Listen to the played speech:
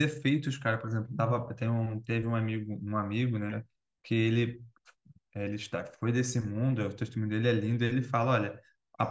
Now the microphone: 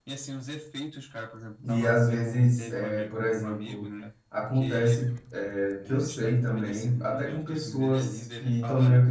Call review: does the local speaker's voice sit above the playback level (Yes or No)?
Yes